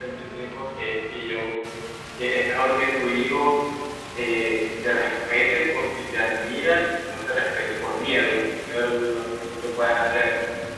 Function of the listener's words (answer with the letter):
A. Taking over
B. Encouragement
B